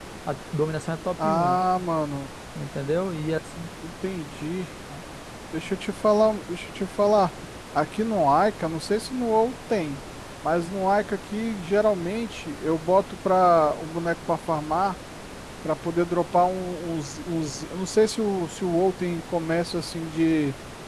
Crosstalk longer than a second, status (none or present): none